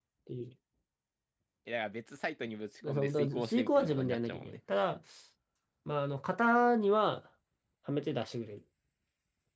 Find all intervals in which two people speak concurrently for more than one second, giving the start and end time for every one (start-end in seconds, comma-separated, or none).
2.9-4.6